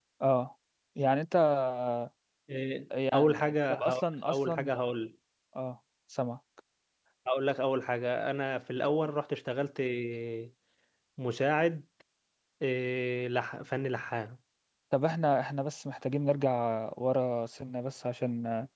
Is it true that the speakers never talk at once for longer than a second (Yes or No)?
No